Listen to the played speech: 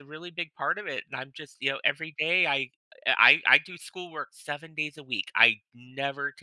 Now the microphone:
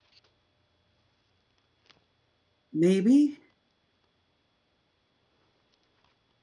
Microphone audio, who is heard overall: user only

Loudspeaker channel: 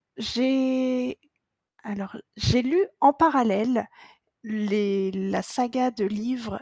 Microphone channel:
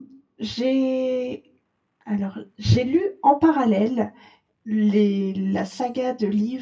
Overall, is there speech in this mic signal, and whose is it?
echo only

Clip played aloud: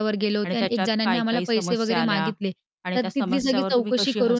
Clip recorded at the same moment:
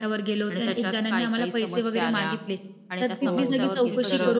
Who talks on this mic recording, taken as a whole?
both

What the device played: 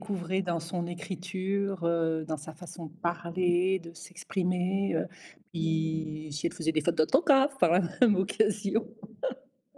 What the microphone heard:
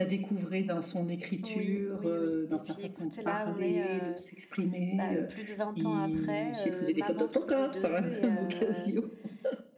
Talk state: both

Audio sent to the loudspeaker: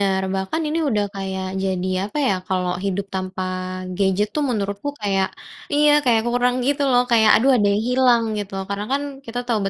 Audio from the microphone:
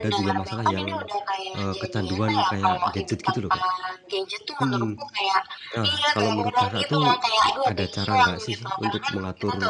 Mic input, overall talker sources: both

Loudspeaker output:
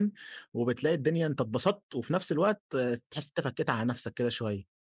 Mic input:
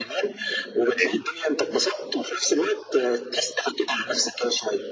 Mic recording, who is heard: both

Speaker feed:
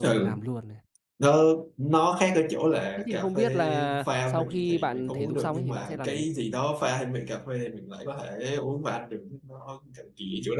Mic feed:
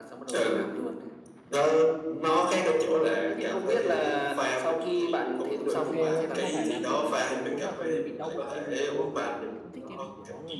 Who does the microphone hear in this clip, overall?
both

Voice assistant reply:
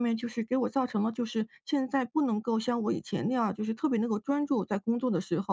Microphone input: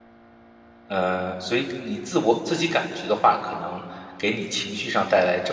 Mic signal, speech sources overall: user only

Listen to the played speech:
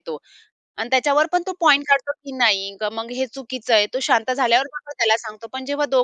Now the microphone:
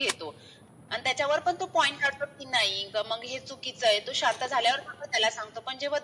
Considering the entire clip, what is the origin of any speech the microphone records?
echo only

